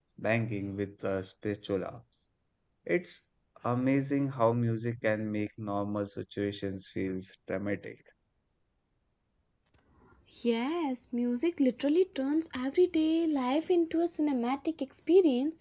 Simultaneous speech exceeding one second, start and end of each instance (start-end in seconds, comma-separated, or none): none